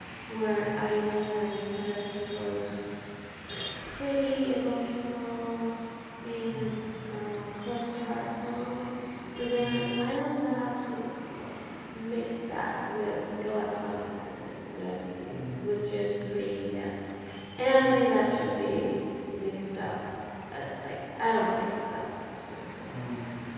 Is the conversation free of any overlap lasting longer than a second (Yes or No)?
Yes